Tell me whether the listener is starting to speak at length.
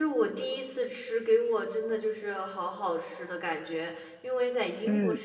No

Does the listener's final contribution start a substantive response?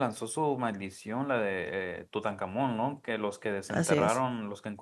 No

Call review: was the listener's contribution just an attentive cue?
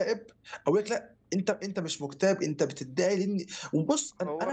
Yes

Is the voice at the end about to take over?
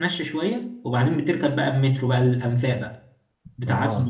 Yes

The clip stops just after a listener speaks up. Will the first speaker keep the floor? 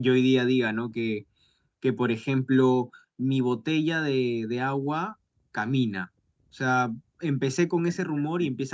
Yes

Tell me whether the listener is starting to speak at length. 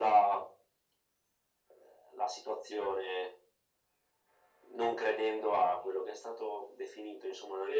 Yes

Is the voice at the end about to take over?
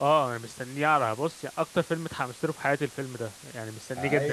Yes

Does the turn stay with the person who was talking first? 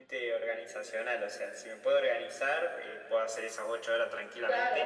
No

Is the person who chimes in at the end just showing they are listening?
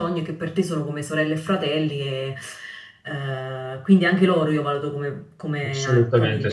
No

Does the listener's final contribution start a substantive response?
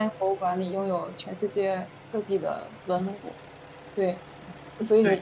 No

